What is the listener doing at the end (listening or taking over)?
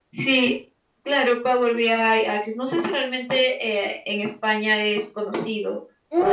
taking over